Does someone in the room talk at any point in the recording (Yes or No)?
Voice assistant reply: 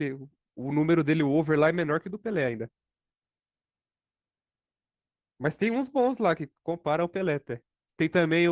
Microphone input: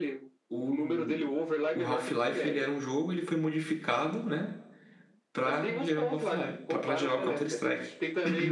Yes